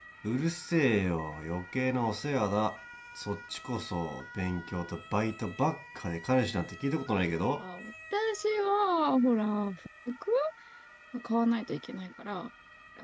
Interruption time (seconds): none

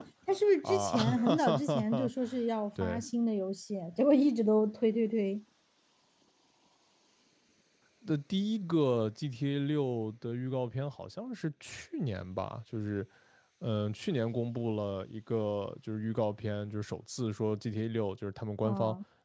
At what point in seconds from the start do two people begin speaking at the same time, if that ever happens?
0.6 s

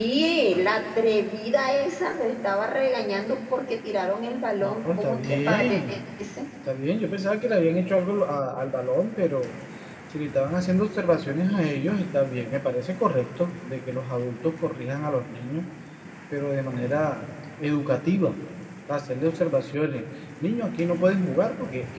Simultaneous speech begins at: 4.6 s

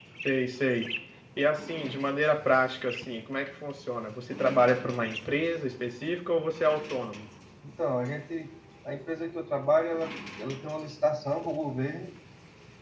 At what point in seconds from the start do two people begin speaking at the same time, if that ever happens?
none

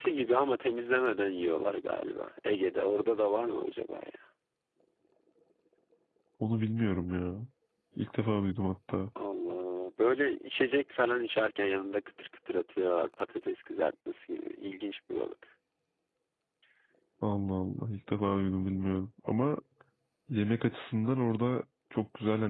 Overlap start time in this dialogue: none

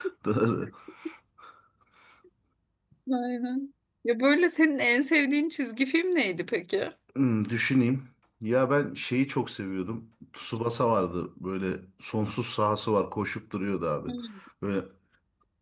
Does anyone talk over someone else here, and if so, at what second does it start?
none

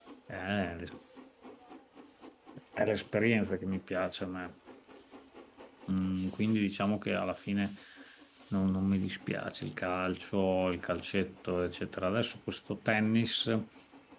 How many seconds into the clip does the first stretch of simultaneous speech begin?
none

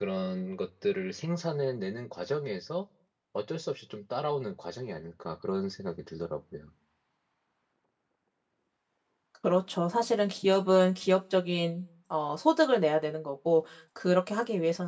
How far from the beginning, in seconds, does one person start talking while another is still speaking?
none

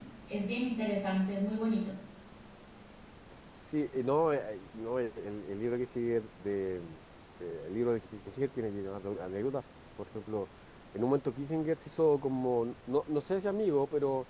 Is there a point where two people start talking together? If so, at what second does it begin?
none

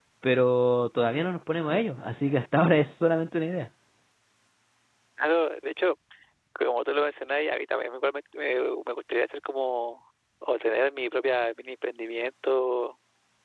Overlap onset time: none

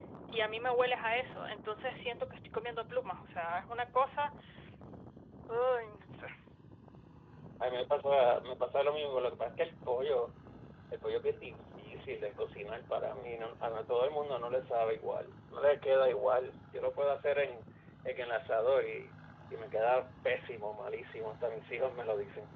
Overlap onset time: none

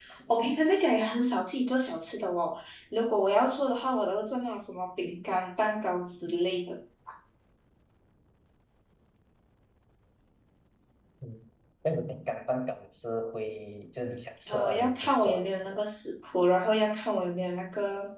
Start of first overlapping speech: 14.5 s

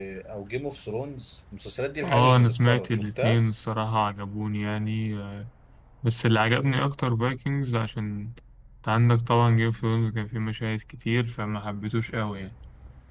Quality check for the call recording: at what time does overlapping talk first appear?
2.0 s

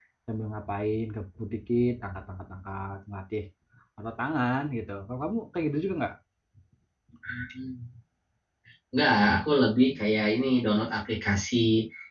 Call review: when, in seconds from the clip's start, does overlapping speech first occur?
none

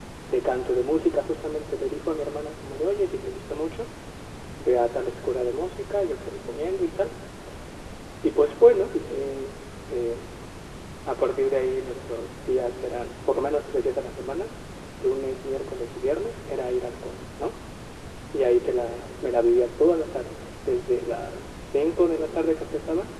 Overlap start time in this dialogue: none

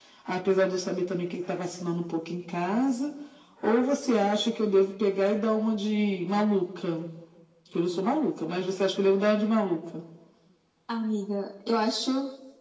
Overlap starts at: none

